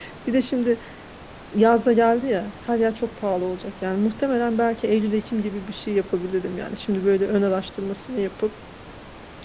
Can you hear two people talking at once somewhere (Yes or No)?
No